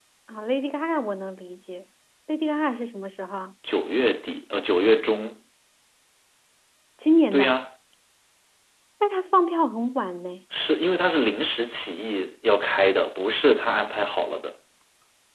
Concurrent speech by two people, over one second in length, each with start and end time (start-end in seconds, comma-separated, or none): none